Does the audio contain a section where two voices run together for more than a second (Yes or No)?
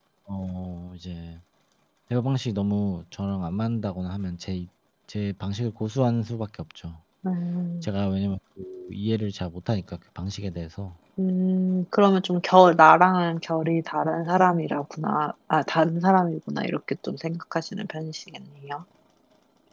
No